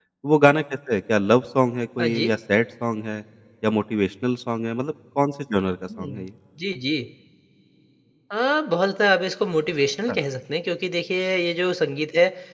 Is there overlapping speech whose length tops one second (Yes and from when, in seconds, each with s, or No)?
No